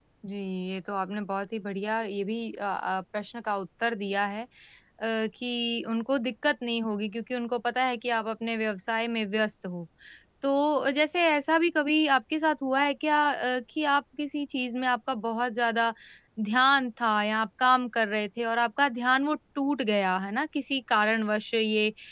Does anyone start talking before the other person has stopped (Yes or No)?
No